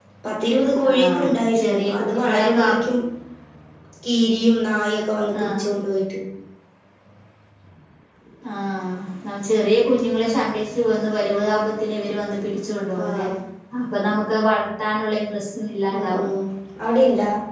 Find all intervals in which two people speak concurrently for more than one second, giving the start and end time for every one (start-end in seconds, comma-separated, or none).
0.9-2.6